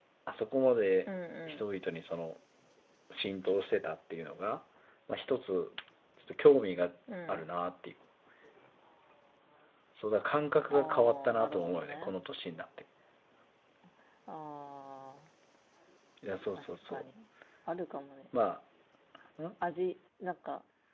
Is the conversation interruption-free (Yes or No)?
No